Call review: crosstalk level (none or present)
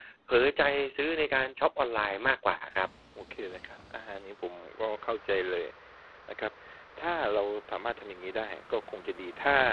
none